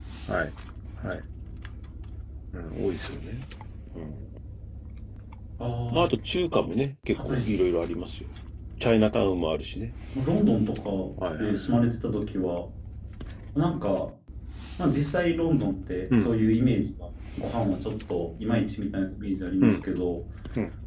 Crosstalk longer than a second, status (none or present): none